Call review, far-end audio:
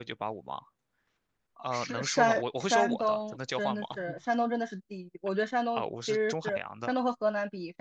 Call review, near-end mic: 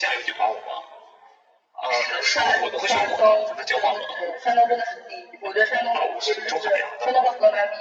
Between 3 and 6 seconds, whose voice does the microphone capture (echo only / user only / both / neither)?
echo only